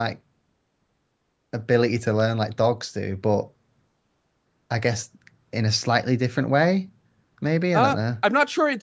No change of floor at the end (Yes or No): No